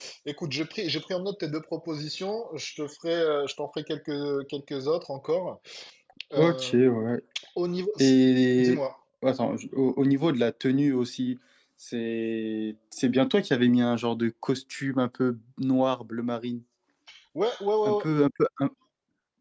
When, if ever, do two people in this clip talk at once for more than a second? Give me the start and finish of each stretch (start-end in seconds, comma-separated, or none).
none